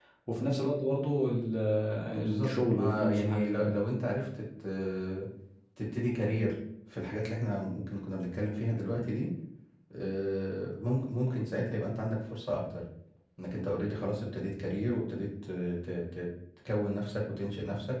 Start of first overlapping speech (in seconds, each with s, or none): 2.2 s